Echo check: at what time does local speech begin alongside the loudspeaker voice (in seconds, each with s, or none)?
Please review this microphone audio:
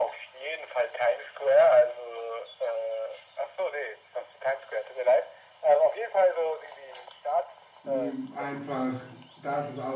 7.8 s